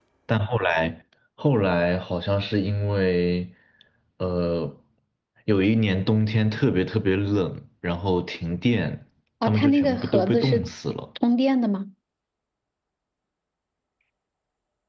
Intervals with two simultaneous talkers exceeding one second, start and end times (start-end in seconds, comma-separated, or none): 9.4-10.7